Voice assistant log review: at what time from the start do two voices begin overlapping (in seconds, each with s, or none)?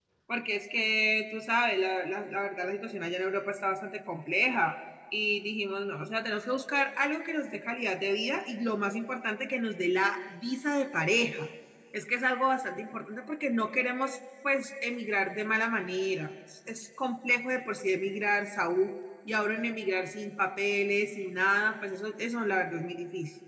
none